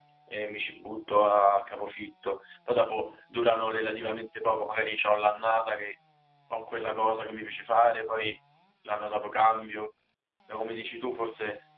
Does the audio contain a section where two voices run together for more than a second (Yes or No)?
No